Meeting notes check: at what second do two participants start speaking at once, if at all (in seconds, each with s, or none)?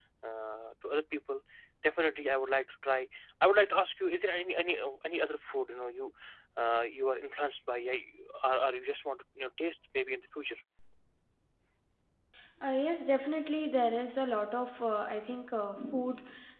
none